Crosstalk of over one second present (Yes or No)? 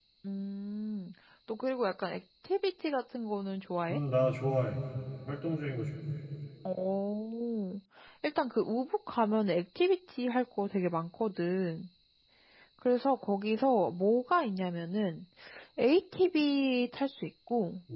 No